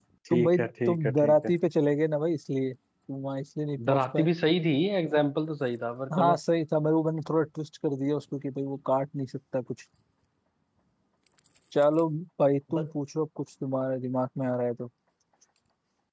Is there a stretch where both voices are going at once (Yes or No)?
Yes